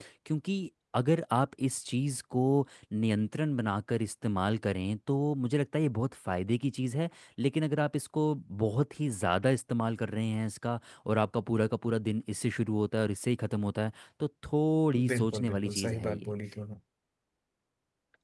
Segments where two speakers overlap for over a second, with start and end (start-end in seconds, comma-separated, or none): 15.1-16.3